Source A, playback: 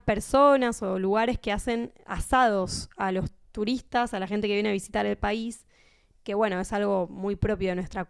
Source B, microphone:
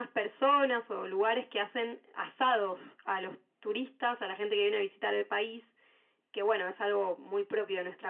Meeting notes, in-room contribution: none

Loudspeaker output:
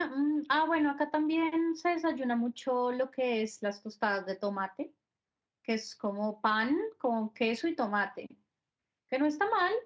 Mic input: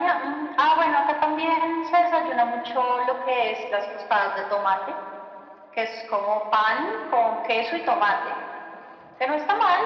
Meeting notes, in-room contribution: none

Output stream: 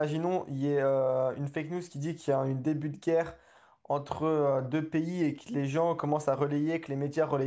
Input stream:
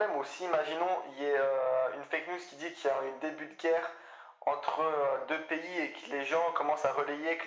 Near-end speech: none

